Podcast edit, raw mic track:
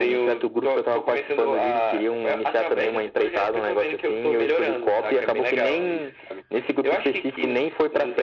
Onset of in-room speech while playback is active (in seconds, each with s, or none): none